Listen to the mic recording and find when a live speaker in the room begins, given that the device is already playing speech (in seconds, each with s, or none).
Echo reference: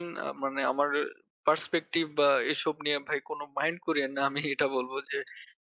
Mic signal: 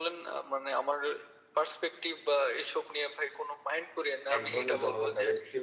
4.3 s